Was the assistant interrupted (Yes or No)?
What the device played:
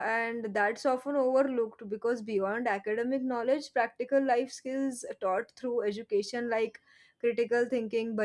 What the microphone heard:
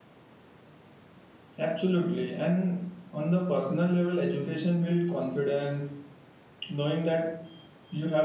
Yes